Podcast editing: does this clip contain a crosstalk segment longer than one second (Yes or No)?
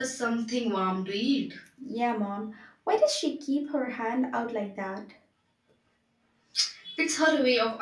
No